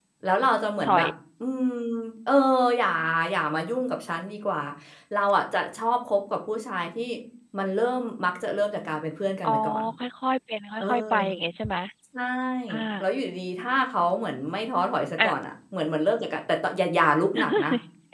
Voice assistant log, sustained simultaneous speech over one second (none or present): none